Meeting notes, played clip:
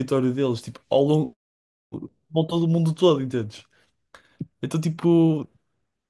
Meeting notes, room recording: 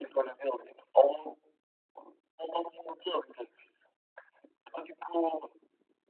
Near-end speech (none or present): none